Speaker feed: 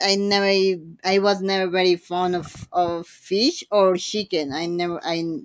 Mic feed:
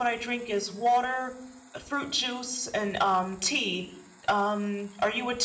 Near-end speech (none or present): present